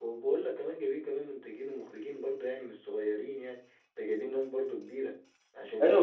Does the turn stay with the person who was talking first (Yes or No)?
No